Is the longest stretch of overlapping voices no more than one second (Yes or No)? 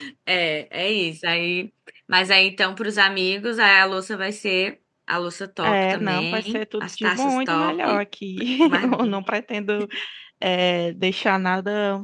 No